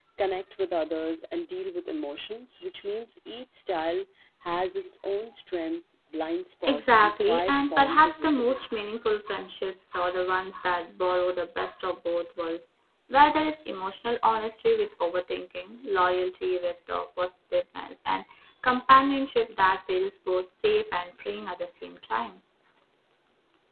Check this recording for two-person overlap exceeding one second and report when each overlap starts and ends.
6.6-8.8

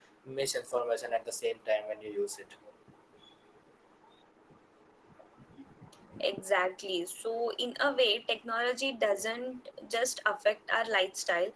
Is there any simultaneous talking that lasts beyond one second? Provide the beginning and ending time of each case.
none

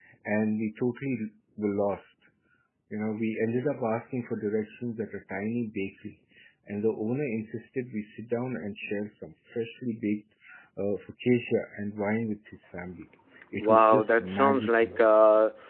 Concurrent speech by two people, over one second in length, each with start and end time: 13.6-14.9

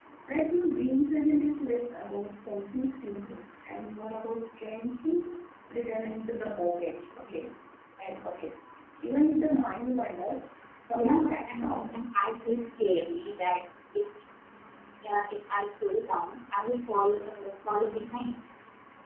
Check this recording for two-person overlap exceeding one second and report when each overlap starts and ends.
10.9-12.2

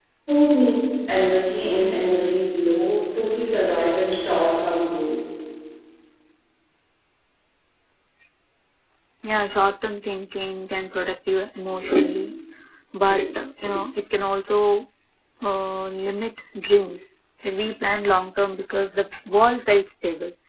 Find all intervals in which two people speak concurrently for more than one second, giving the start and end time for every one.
none

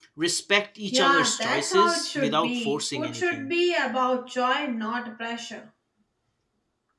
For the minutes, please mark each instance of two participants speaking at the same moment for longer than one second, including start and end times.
0.9-3.5

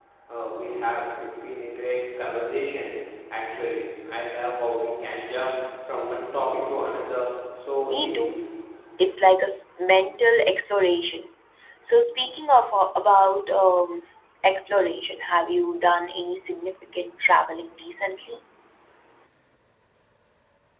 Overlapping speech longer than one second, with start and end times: none

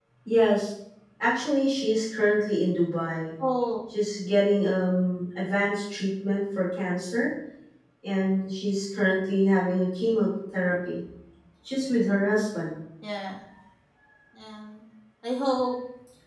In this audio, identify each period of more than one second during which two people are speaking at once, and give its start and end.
none

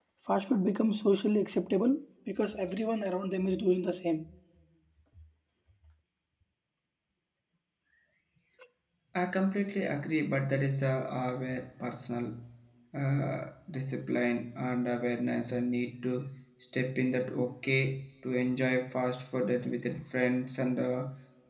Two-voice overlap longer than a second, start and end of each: none

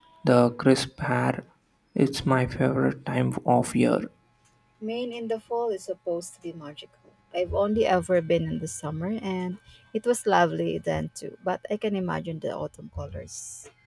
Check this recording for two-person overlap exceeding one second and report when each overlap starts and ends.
none

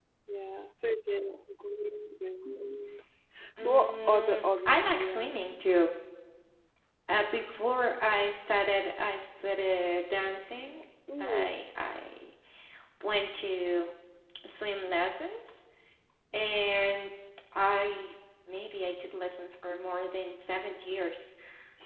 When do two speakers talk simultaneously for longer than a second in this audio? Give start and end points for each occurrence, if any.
3.6-5.4

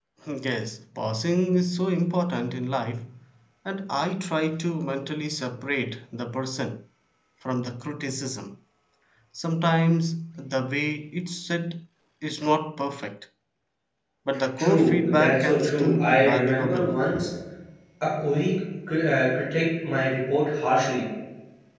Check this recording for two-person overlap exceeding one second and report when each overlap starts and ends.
14.6-17.0

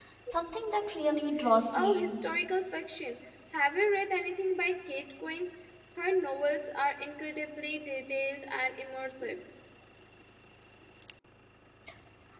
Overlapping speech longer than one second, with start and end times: none

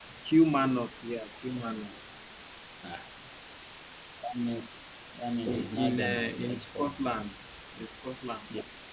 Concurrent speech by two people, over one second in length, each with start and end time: 5.5-7.0

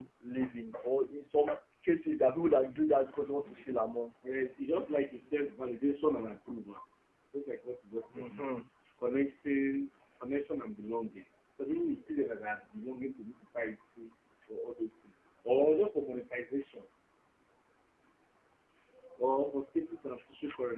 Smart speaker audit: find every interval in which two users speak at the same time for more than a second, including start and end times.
none

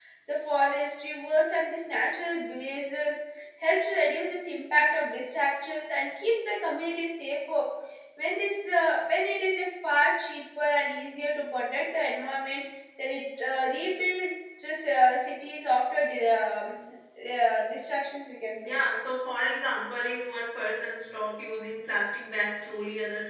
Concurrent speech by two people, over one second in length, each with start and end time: none

